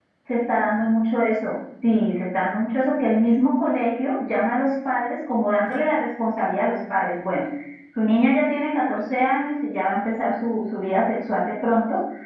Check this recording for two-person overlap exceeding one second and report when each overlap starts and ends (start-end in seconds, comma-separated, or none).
none